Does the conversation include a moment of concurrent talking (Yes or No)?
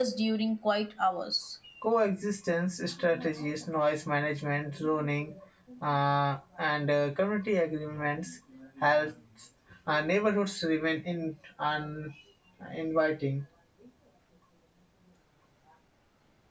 No